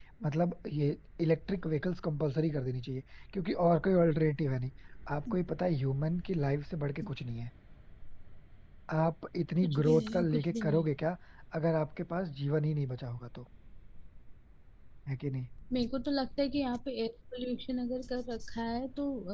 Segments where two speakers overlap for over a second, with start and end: 9.6-10.8

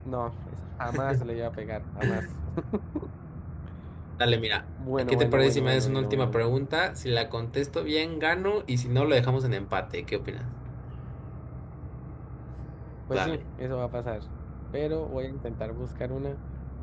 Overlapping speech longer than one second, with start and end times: 5.0-6.4

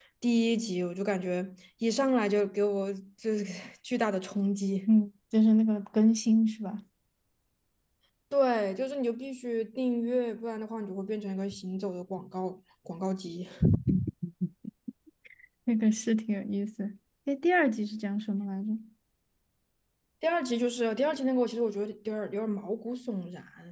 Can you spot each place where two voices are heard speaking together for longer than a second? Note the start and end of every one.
none

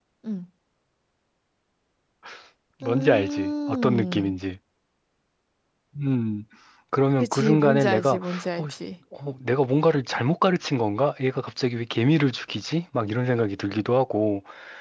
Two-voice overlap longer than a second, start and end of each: 2.8-4.4, 7.2-8.8

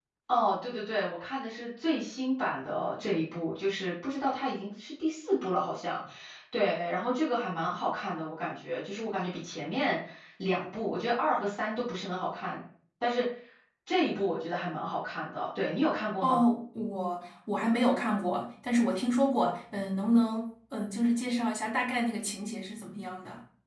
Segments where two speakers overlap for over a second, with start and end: none

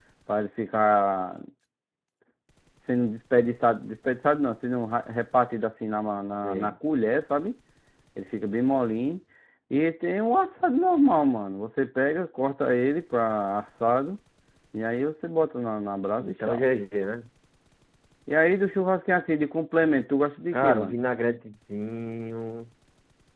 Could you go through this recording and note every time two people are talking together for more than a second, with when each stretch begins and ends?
none

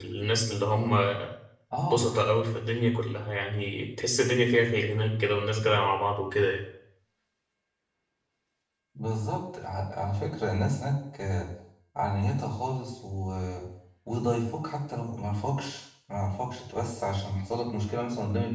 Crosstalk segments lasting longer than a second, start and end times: none

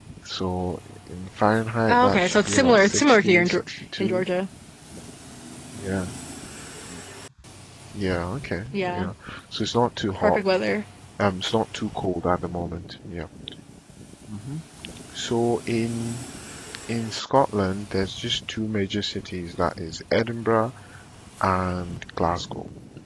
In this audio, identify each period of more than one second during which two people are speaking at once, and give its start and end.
1.9-3.6

